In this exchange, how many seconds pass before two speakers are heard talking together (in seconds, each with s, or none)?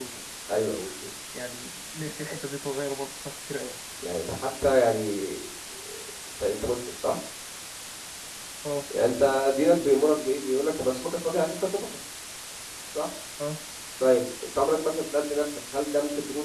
none